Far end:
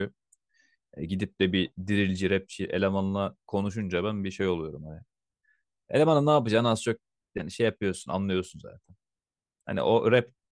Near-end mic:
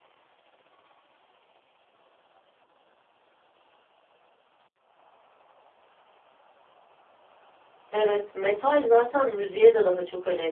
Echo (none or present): none